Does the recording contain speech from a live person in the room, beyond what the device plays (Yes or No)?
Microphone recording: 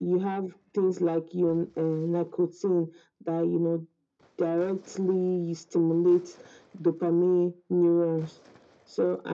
No